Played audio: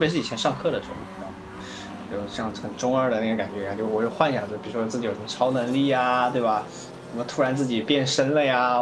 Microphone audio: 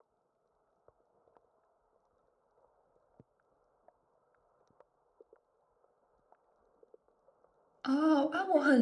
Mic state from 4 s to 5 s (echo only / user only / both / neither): neither